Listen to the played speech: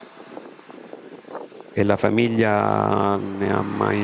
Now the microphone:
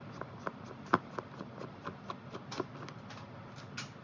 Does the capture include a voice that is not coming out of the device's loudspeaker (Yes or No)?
No